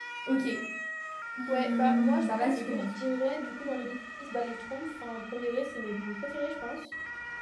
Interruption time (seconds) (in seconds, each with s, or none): 1.5 s